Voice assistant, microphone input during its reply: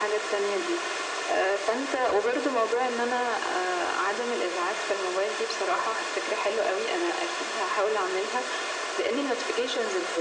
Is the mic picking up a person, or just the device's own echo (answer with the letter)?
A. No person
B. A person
A